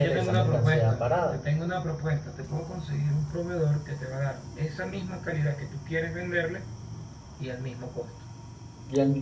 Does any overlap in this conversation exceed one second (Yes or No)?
Yes